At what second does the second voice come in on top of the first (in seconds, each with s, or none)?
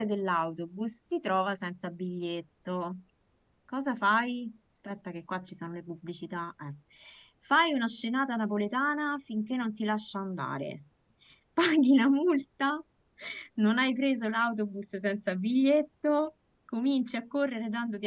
none